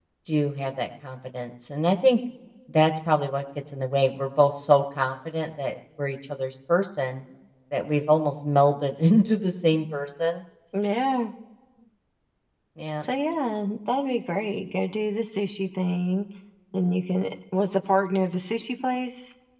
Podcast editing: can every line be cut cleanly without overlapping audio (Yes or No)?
Yes